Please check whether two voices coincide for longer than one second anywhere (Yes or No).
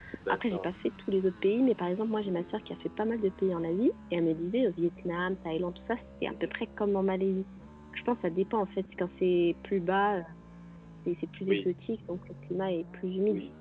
No